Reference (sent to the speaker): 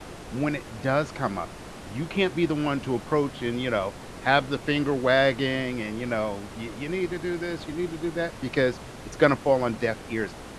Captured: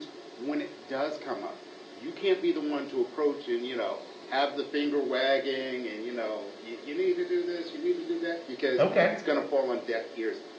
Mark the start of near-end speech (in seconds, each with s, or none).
8.8 s